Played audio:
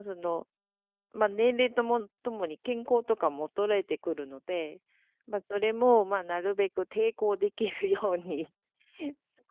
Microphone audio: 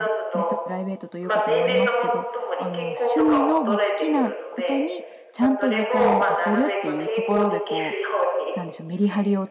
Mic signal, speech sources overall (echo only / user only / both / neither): both